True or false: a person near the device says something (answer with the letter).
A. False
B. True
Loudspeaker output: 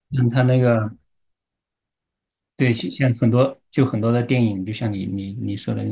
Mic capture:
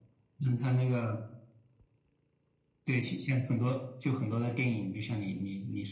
A